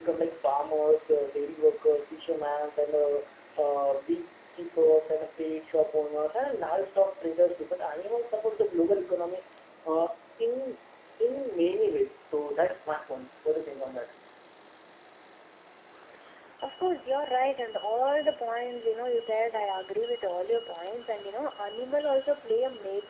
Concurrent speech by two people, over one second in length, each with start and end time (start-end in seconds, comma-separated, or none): none